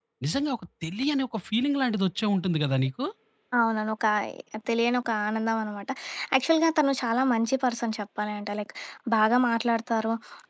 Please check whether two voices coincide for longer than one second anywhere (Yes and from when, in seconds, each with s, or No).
No